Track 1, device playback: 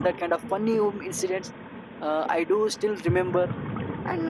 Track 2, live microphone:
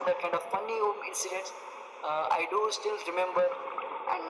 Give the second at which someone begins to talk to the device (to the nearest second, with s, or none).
none